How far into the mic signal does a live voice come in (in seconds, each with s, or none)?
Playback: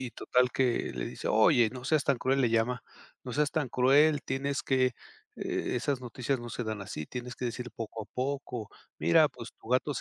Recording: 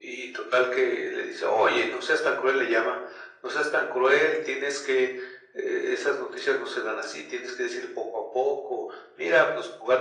none